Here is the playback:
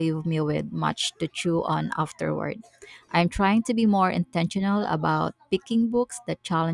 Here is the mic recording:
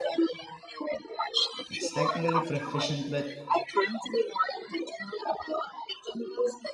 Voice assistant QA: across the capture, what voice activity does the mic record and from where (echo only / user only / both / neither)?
both